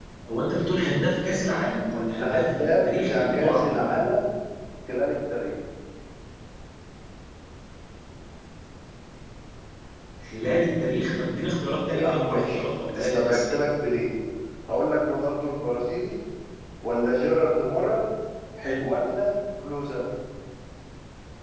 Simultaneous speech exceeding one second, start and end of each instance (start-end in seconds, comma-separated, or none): 2.2-3.9, 11.9-13.4